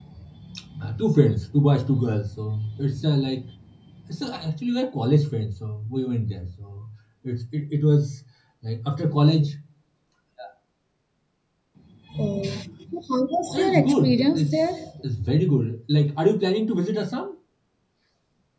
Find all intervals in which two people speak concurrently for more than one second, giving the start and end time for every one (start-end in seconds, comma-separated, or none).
13.5-14.9